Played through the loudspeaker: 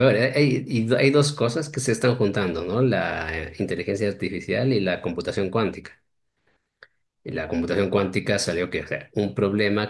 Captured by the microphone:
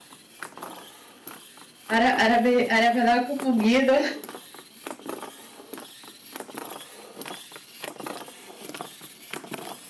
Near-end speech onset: 1.9 s

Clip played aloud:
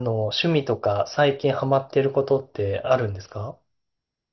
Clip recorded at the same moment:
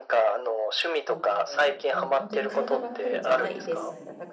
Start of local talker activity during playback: 1.0 s

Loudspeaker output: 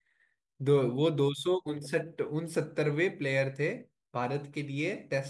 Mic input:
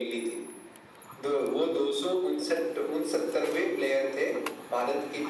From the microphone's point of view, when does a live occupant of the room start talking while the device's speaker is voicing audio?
none

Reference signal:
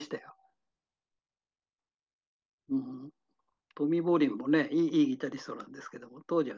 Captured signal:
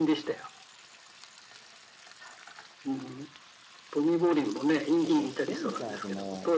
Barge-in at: 5.0 s

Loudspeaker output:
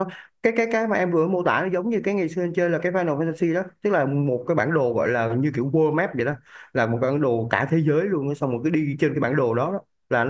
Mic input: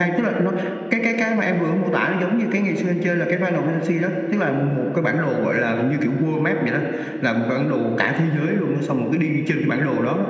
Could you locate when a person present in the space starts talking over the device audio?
none

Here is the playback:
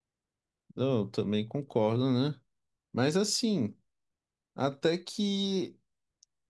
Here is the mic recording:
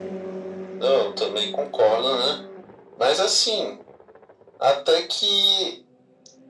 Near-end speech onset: none

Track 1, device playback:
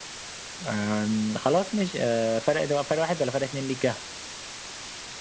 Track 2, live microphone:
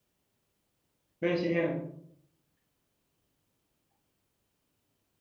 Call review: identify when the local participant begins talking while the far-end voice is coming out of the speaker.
1.2 s

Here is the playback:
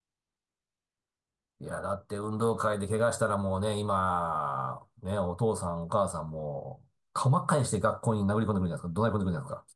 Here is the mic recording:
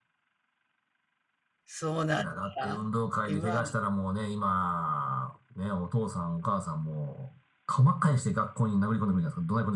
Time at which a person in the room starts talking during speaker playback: 1.6 s

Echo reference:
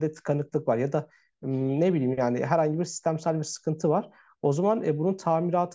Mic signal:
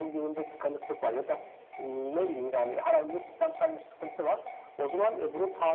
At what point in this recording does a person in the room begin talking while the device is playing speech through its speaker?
none

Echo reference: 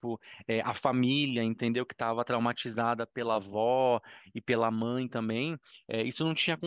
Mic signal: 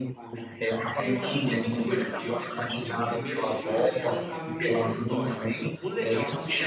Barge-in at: 1.0 s

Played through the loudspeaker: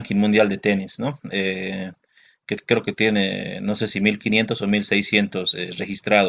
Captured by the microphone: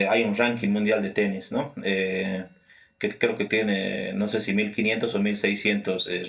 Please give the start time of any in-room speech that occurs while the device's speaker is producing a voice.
none

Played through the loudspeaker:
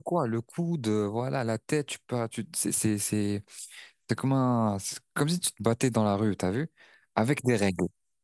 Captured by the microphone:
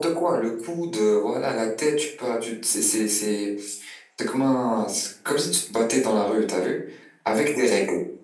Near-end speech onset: none

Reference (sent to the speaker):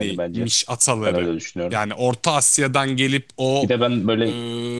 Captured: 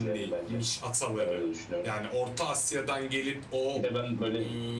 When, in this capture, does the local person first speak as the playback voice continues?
none

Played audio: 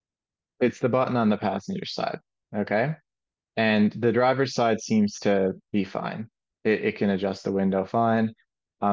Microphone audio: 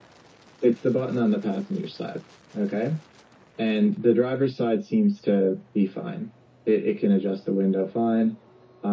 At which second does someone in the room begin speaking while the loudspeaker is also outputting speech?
none

